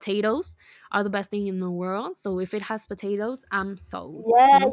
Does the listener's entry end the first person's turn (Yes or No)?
Yes